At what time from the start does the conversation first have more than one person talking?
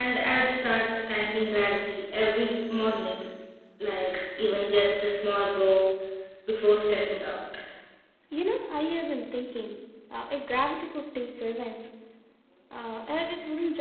none

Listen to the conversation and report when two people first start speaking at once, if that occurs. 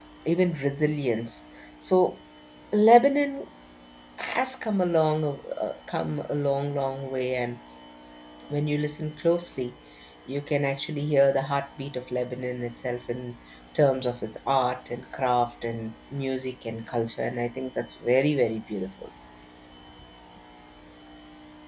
none

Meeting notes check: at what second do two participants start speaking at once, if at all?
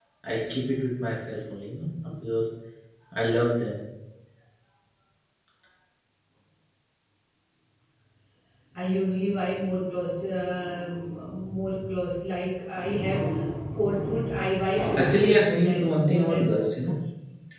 15 s

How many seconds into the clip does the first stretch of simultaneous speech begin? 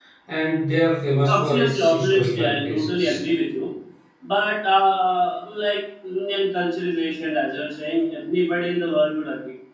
1 s

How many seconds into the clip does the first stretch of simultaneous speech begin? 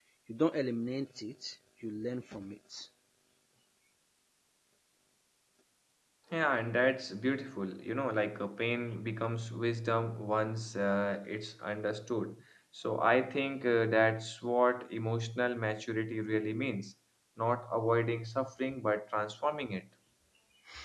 none

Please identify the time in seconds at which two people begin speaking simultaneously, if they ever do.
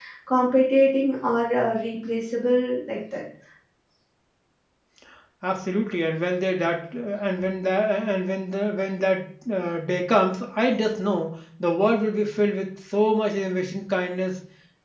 none

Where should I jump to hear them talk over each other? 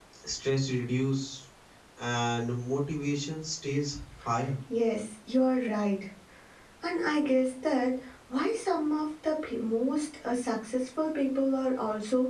none

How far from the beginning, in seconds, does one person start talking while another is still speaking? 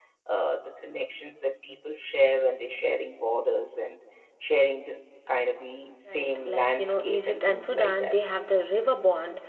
6 s

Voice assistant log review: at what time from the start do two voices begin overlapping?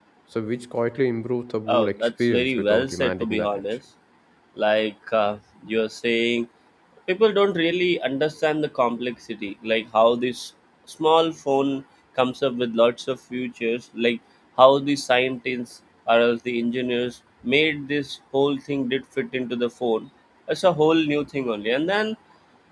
2 s

